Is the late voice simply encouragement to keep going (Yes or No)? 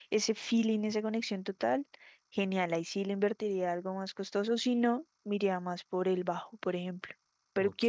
Yes